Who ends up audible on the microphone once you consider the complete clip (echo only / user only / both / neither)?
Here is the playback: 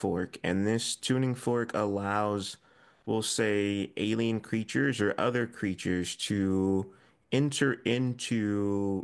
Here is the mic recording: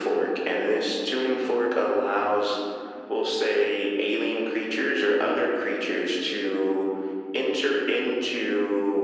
echo only